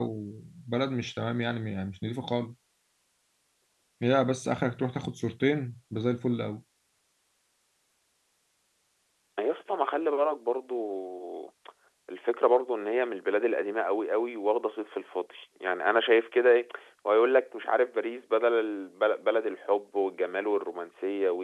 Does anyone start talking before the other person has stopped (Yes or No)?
No